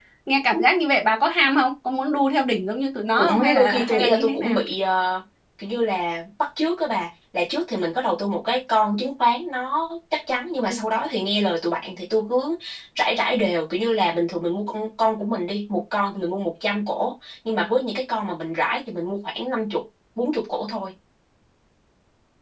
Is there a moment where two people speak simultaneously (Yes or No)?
Yes